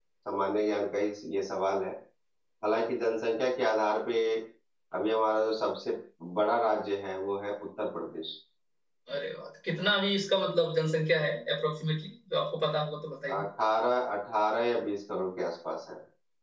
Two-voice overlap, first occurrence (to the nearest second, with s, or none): none